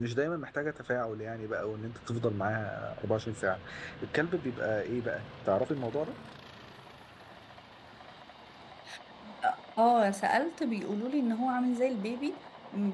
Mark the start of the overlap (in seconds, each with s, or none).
none